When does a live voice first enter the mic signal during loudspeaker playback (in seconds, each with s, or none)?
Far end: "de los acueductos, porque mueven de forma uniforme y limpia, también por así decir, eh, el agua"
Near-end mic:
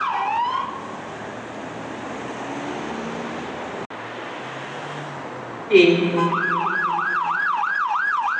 5.7 s